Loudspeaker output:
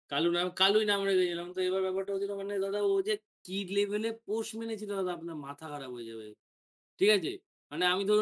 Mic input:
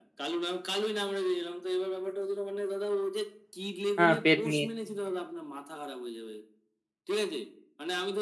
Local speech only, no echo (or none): হ্যাঁ? পেট নিয়ে।